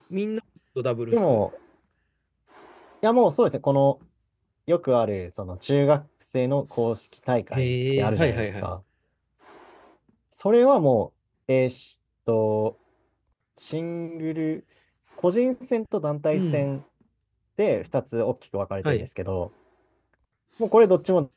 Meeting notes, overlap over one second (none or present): present